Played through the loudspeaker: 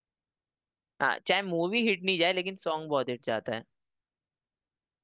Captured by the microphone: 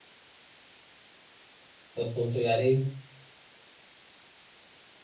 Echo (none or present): none